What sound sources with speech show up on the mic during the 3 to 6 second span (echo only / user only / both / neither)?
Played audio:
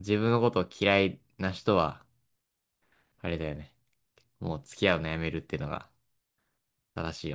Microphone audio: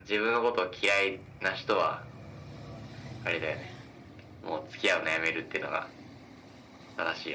echo only